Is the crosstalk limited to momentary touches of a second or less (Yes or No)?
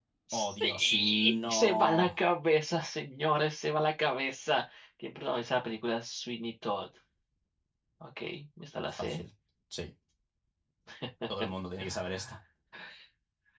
No